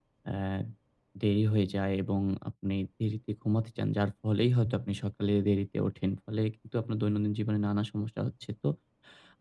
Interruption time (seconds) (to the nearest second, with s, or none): none